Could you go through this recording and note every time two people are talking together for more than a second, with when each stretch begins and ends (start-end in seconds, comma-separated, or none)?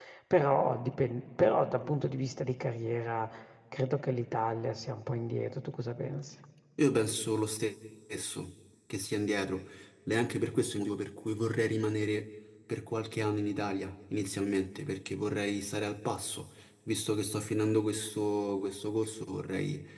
none